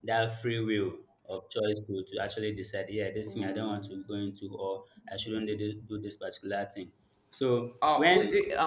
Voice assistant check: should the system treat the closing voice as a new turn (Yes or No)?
Yes